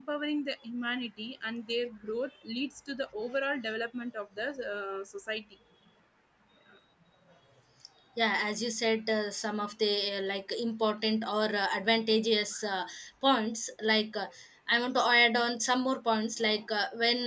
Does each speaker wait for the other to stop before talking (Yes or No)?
Yes